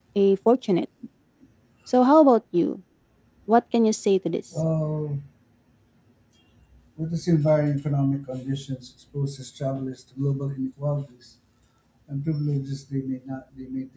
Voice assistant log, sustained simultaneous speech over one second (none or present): none